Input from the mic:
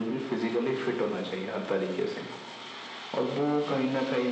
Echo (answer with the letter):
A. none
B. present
B